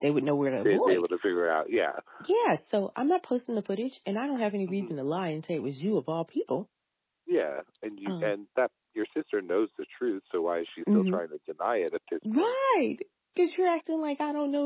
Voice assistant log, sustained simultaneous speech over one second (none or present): none